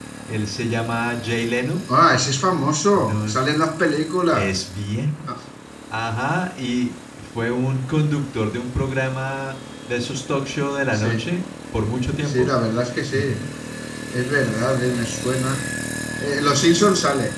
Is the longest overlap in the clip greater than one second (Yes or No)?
No